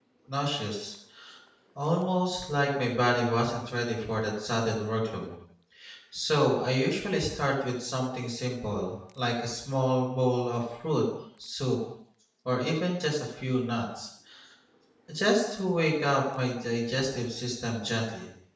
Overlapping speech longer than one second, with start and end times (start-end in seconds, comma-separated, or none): none